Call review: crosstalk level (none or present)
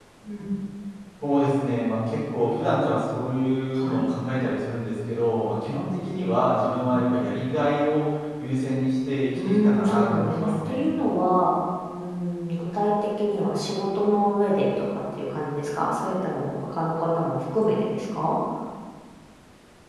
present